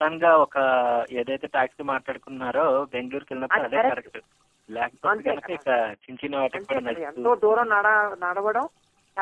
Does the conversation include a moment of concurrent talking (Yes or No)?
Yes